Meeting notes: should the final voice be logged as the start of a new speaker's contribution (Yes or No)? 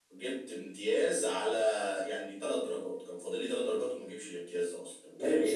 Yes